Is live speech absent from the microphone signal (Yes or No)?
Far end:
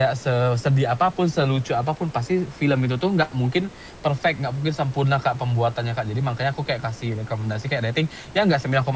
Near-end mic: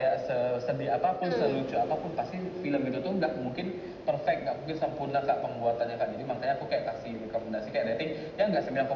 No